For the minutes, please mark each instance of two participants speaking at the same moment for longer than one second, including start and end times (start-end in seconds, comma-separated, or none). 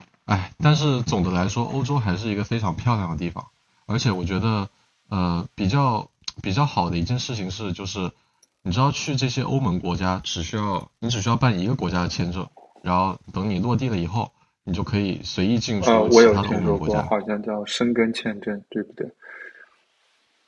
15.8-17.1